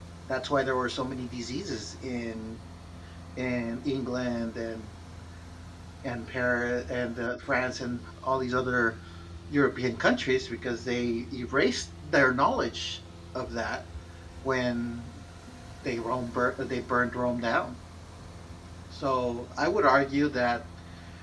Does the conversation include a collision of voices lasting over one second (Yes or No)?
No